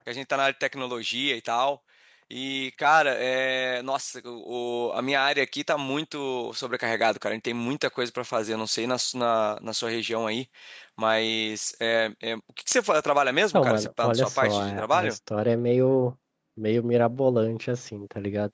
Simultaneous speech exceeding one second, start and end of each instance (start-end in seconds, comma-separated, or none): 13.5-15.2